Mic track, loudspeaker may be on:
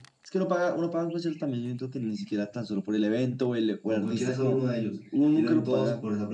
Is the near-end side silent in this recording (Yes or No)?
No